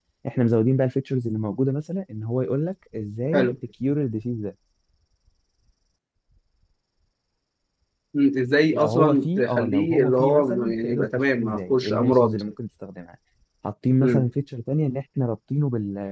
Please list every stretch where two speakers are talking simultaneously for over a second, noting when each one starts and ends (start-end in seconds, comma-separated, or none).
8.7-12.4